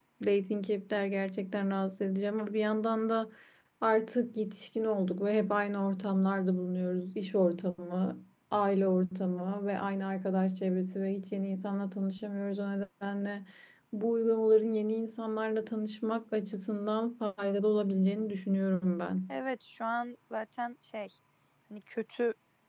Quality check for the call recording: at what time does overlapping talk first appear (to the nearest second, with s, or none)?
none